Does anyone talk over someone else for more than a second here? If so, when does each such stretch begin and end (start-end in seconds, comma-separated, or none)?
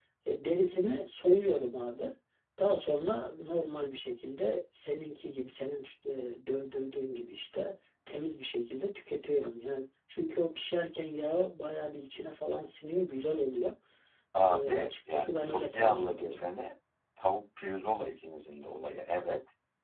14.4-16.5